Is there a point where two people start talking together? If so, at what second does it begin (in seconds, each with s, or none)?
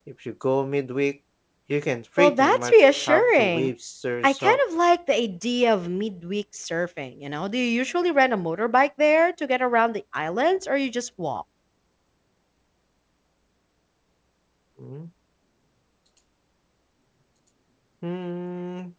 2.2 s